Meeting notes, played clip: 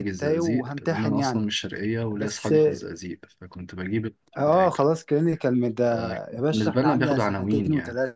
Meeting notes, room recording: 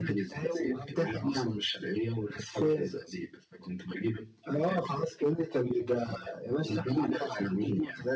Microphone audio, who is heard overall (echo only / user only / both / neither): echo only